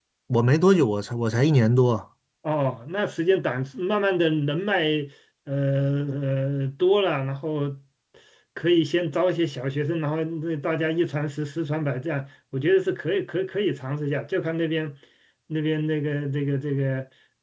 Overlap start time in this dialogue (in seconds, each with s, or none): none